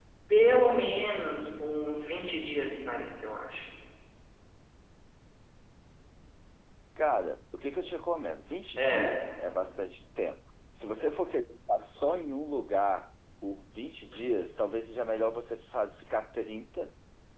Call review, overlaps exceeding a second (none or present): none